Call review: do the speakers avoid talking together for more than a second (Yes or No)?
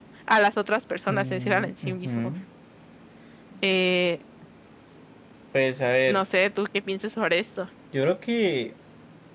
No